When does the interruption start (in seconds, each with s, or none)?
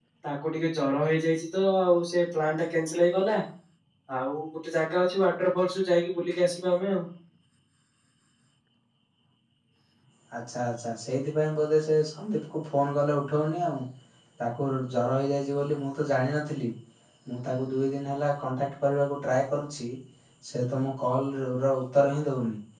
none